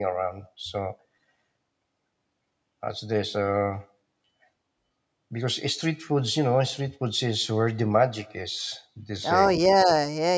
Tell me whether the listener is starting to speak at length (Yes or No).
Yes